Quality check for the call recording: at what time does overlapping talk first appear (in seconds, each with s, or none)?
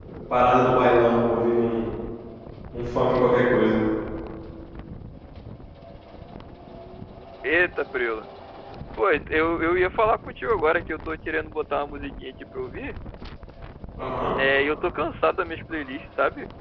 none